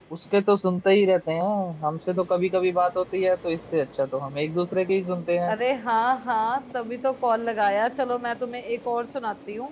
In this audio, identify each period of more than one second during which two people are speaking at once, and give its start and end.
none

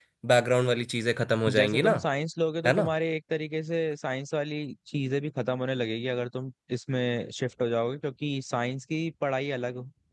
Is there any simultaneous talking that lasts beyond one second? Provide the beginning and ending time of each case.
none

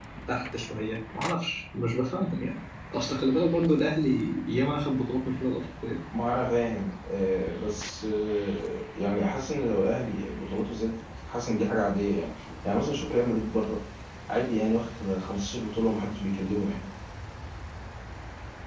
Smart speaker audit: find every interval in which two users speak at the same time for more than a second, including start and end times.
none

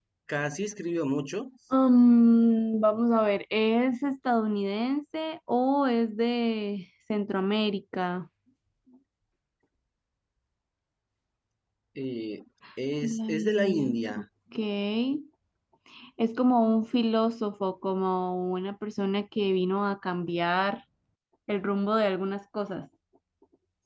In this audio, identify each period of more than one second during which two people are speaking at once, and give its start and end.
13.0-14.2

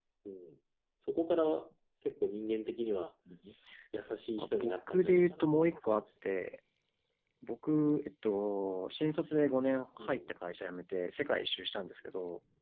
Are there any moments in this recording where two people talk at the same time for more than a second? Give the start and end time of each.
4.4-5.9

